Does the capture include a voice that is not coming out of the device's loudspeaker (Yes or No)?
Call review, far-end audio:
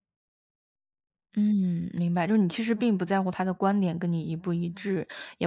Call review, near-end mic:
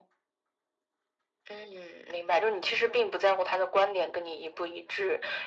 No